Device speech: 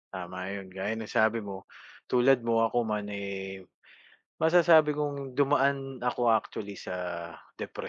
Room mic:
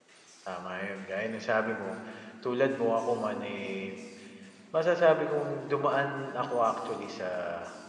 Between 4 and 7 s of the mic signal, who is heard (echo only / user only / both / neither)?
echo only